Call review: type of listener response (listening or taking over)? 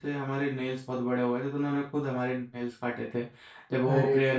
listening